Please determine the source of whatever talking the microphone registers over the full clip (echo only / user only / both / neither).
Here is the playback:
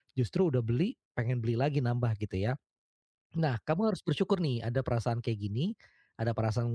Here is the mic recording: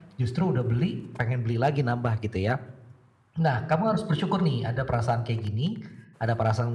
echo only